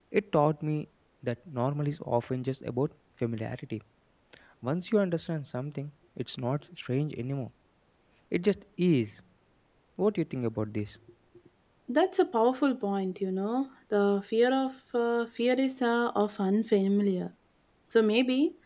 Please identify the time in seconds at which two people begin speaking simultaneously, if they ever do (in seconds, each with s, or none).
none